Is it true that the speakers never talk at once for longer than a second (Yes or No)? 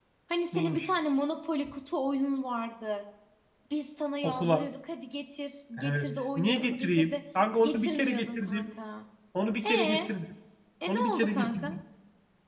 No